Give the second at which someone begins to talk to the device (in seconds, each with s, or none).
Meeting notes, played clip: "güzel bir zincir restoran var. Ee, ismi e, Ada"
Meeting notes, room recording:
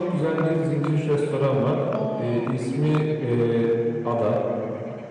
1.9 s